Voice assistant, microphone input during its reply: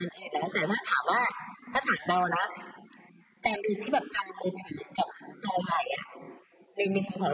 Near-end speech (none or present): none